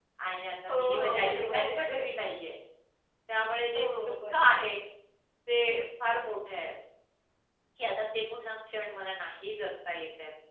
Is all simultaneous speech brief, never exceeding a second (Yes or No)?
No